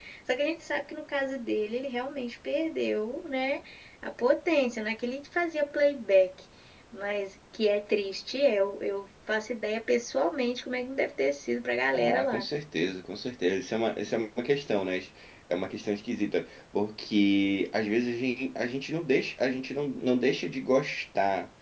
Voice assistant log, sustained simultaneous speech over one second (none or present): none